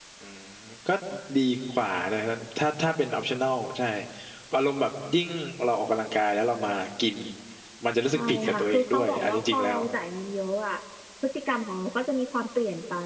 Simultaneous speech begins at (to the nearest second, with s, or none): 8 s